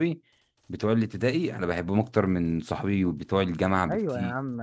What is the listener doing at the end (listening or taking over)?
taking over